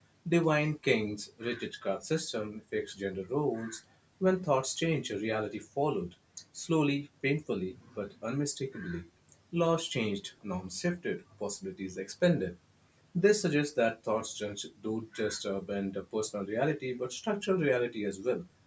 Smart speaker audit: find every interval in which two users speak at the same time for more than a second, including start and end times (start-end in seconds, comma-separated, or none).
none